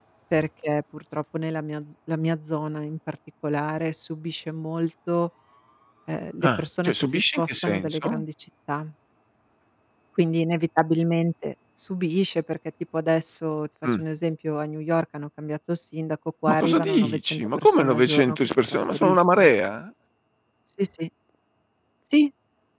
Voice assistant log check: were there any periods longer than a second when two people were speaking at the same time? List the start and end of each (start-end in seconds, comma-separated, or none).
6.4-8.2, 16.5-19.5